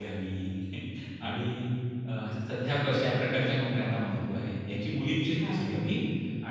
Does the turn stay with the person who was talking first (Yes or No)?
Yes